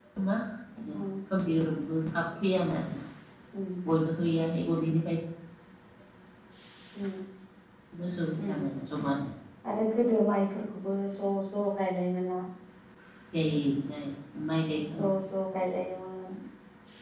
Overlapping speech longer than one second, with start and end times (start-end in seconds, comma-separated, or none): none